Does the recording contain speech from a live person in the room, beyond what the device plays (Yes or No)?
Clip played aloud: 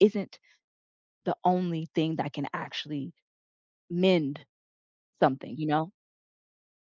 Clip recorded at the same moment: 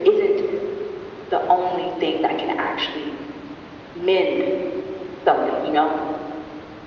No